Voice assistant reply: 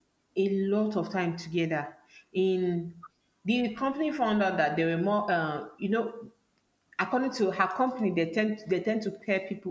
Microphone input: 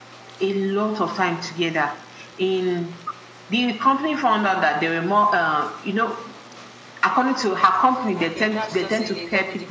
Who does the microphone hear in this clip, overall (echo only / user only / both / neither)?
both